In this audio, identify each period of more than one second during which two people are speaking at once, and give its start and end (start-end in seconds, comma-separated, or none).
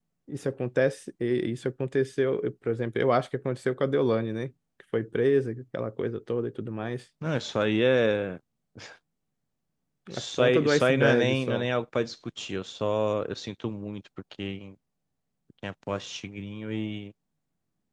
10.2-11.7